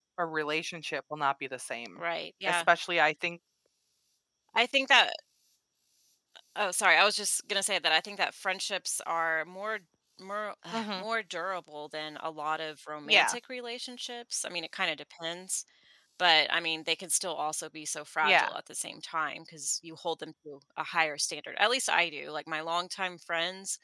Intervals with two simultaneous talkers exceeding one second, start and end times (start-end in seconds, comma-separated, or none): none